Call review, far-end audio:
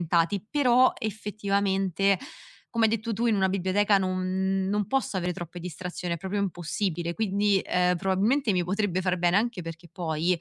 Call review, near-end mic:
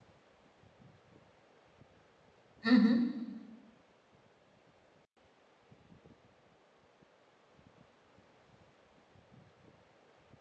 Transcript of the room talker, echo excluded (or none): Mh-mh.